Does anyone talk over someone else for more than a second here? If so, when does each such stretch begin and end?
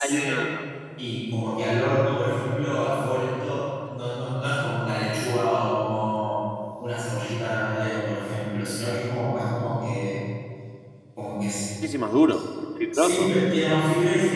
none

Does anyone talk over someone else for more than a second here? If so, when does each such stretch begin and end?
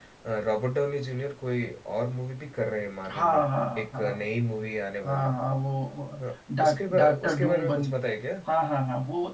6.6-7.9

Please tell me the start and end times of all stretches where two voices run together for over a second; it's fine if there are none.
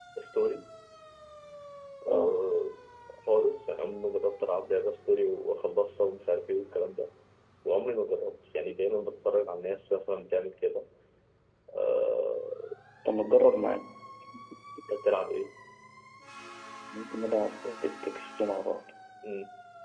none

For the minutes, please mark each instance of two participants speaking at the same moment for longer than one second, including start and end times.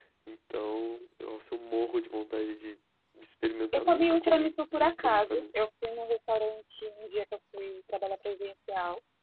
3.7-5.4

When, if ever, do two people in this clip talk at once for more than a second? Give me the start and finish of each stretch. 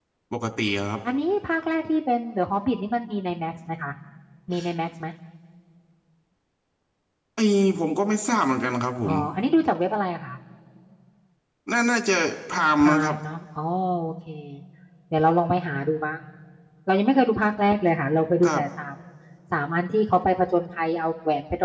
none

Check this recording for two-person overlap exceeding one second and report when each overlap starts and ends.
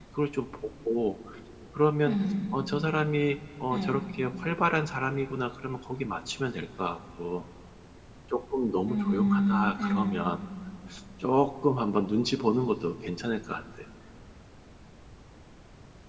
8.9-10.2

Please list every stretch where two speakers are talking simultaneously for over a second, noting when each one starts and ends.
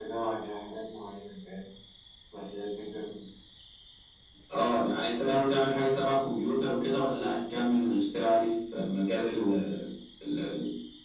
none

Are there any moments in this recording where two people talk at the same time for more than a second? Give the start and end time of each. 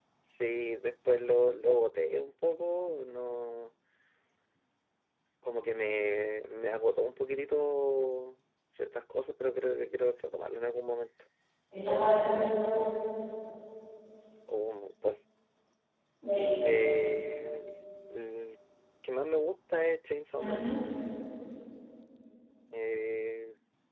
none

